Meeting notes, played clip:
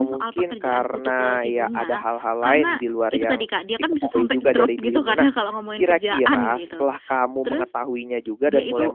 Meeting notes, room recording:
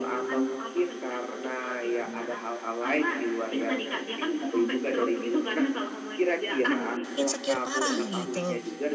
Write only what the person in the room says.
insecure parah gitu.

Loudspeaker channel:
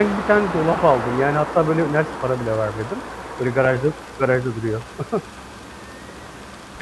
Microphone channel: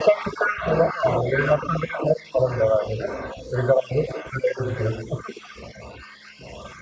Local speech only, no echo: none

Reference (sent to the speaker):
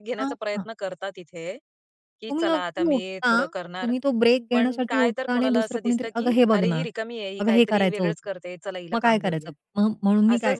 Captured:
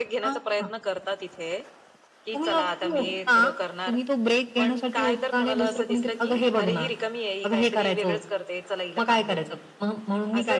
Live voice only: none

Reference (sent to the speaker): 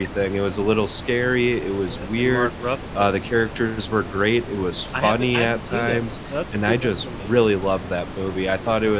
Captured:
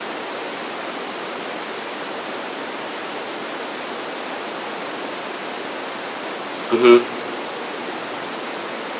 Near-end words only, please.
Mhm.

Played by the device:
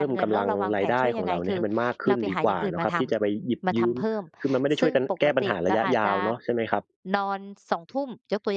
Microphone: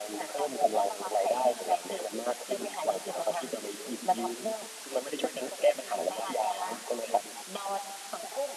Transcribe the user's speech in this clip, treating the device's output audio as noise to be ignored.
none

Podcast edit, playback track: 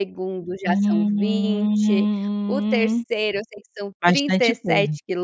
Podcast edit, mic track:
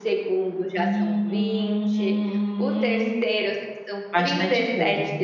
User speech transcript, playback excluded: none

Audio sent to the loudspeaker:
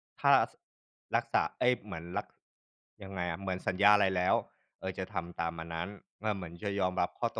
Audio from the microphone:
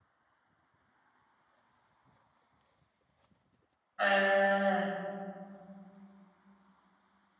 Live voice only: ๆ อา

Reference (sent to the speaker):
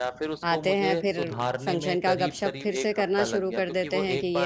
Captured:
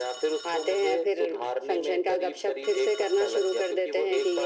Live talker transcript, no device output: none

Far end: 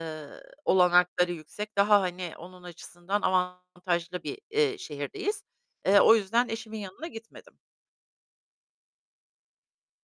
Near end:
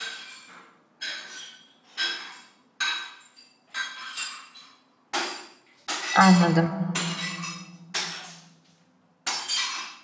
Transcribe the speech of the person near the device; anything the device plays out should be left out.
Anladım.

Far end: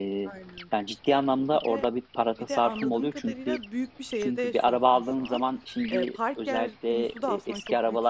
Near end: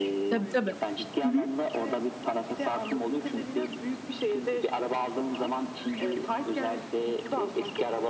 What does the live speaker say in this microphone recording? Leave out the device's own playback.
Tabii, tabii. Hı hı.

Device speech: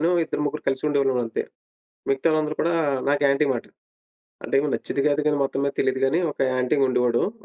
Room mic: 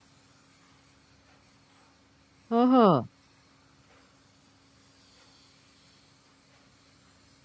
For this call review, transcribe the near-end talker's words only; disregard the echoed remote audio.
ఓహో!

